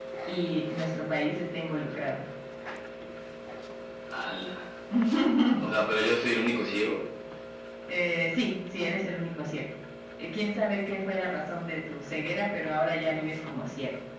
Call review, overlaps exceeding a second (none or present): none